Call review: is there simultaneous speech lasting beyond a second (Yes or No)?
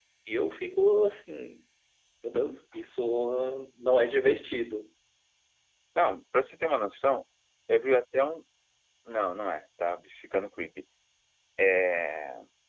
No